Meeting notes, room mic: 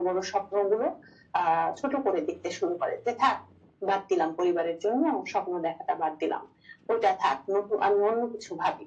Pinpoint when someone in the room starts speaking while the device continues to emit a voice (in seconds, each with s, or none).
none